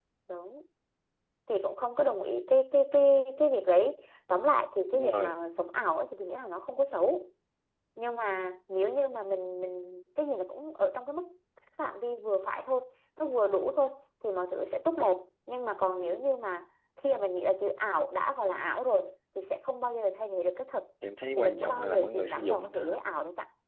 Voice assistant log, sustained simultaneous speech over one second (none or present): present